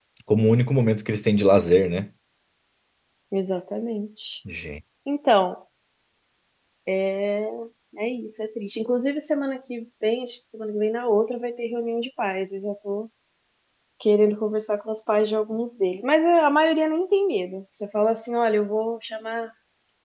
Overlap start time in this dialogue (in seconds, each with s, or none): none